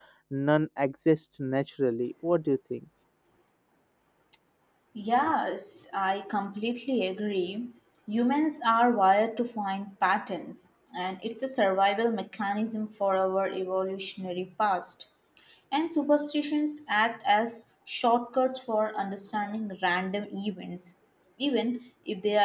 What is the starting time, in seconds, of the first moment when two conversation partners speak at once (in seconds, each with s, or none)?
none